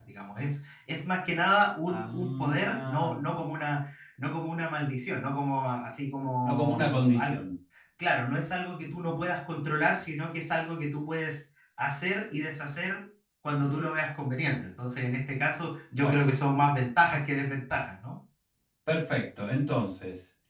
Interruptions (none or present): present